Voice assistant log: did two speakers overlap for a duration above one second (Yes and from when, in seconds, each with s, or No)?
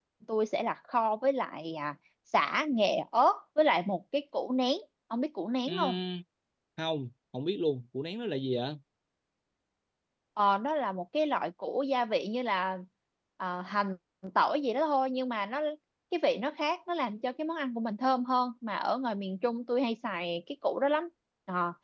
No